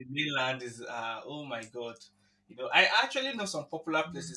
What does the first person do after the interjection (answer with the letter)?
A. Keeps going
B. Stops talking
A